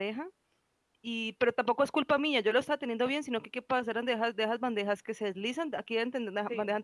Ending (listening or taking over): listening